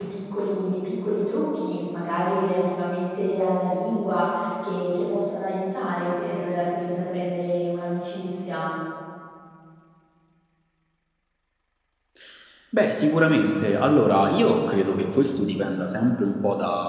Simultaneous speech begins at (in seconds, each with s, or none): none